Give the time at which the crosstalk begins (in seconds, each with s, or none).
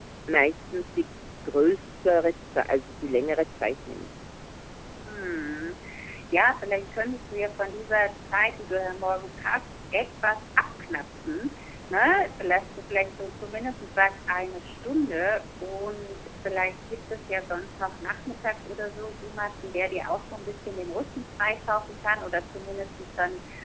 none